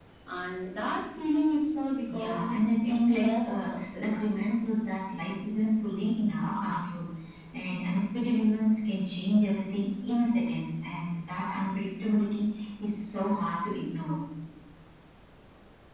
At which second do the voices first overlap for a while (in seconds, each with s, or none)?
2.1 s